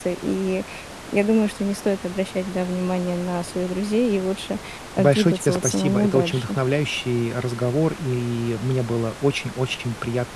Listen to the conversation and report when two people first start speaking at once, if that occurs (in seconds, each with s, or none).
5.0 s